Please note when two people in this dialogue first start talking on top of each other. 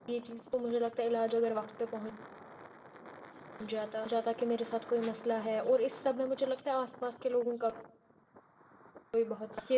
none

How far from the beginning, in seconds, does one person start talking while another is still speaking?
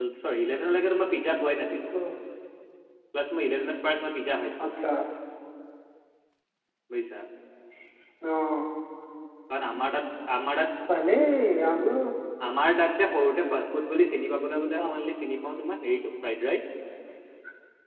none

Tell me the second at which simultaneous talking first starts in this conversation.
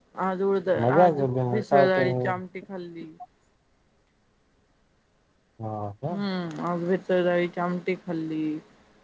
0.8 s

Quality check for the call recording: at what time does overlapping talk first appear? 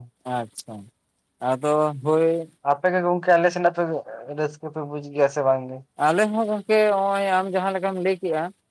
none

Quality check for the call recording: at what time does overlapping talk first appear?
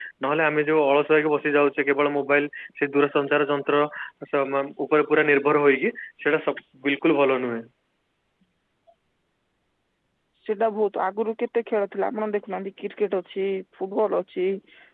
none

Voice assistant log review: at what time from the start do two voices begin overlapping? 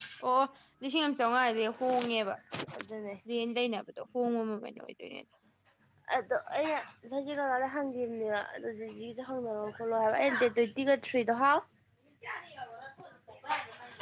none

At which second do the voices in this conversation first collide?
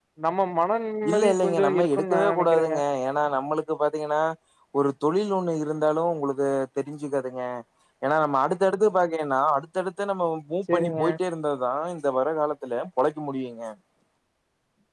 1.1 s

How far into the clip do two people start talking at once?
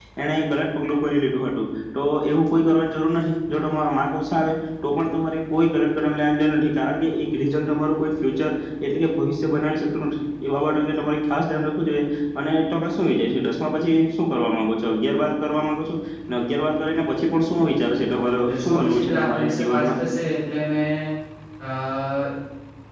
18.4 s

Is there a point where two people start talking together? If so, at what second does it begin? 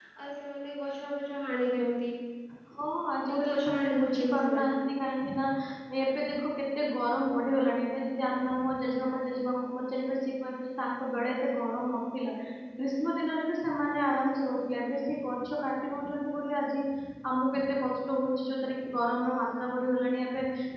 3.3 s

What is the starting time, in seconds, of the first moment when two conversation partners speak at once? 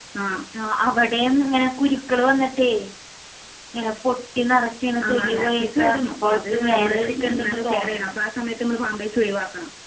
5.0 s

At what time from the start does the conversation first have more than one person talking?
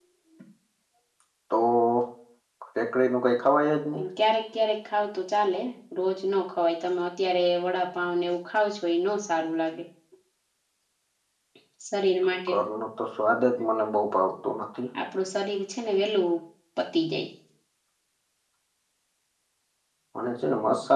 none

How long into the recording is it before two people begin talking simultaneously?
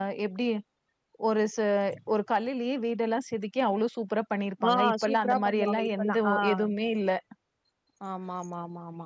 4.6 s

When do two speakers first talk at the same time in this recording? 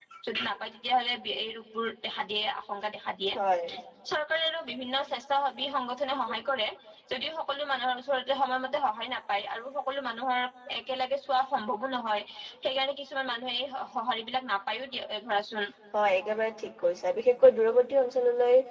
none

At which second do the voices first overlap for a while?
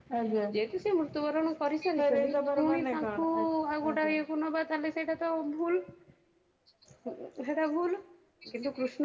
2.0 s

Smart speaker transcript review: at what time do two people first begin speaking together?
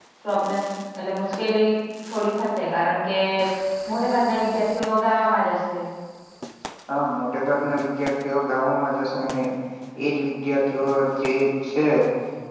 none

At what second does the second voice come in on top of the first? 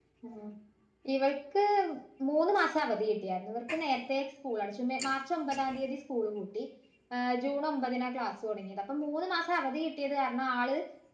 none

